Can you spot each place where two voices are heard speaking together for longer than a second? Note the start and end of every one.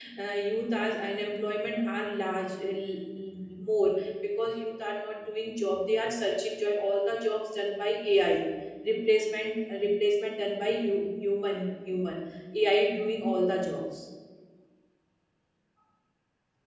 none

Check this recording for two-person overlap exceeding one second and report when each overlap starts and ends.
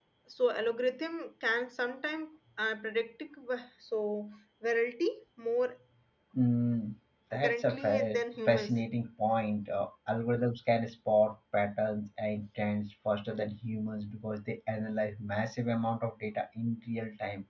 7.3-8.8

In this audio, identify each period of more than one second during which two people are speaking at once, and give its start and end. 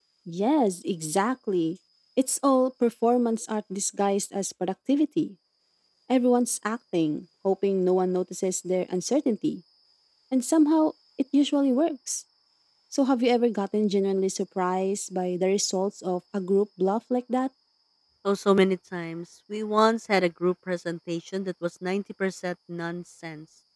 none

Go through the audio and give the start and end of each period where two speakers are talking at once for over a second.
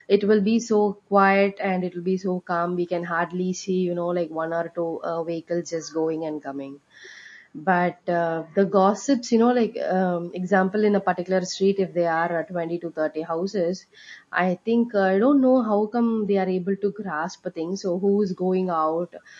none

